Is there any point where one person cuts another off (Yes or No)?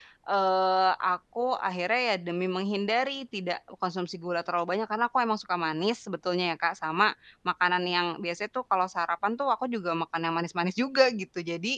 No